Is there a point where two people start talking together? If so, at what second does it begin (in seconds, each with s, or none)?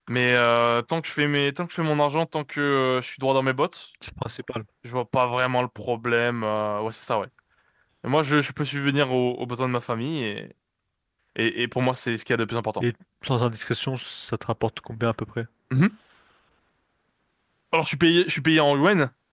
none